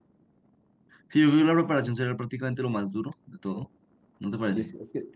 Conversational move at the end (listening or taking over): taking over